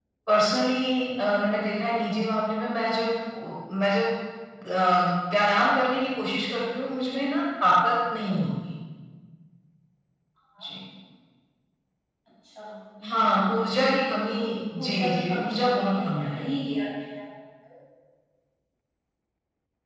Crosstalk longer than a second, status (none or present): present